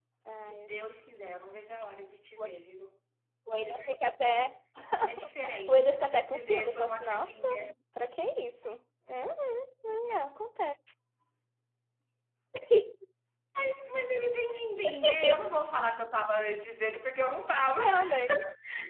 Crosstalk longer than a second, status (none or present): present